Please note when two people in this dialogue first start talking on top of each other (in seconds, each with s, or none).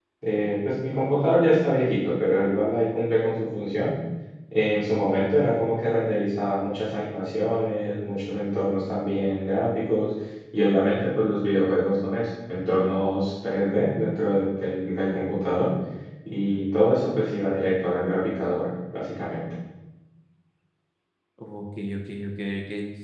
none